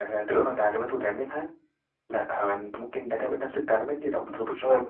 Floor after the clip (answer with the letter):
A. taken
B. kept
A